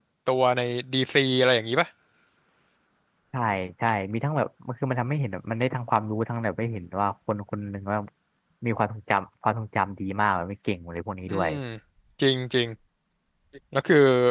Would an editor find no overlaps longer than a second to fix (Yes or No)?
Yes